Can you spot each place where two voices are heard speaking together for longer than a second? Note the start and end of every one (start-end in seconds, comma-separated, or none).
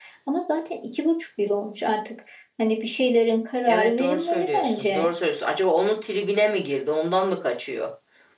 3.7-5.1